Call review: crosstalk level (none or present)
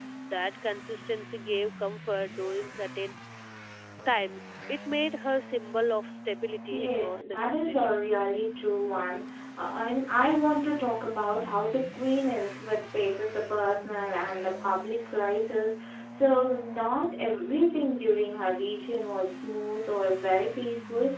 present